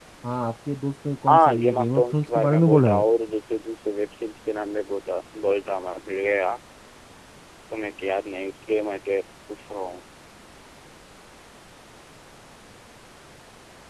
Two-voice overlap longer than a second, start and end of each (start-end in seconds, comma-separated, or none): 1.3-3.0